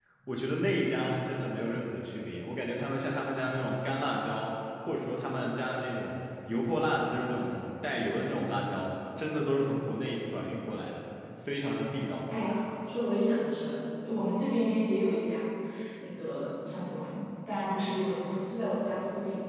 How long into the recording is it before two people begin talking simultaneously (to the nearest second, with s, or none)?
none